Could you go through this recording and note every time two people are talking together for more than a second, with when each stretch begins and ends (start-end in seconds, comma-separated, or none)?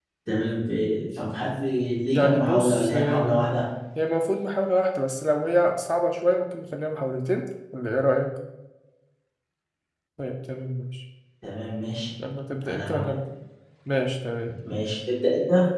2.1-3.5